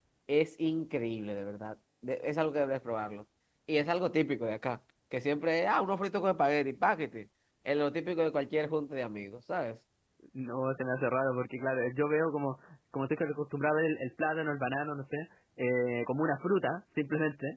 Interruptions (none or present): none